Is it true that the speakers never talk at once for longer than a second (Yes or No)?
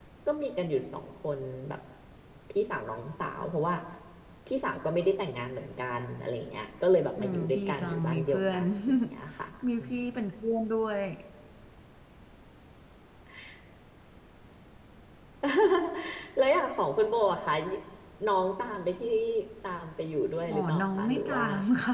No